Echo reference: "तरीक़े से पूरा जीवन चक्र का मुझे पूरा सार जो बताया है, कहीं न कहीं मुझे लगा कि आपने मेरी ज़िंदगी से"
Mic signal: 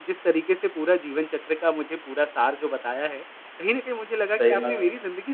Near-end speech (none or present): present